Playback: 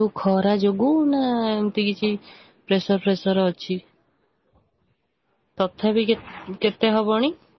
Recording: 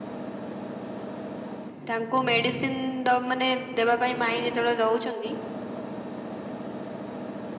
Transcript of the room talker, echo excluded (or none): ତାଙ୍କୁ ମେଡିସିନ ଦଅ ମାନେ ଦେବା ପାଇଁ ମାଇଁ ଯେତେବେଳେ ଦଉଛନ୍ତି।